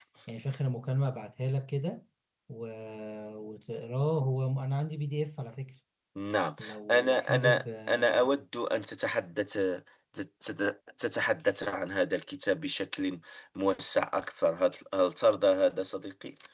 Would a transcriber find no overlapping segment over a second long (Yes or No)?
No